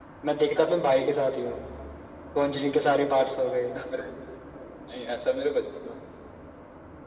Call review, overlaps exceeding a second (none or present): none